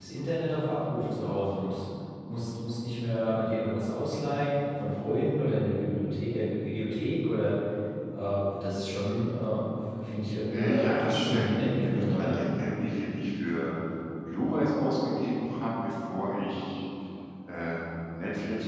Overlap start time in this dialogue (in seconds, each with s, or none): 10.5 s